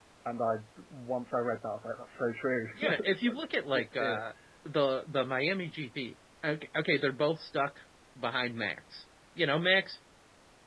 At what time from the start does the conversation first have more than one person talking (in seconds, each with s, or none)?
2.8 s